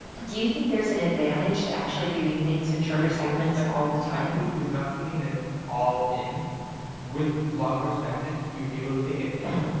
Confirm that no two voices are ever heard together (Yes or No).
No